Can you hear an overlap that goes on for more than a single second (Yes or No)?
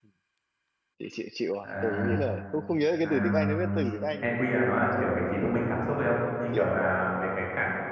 Yes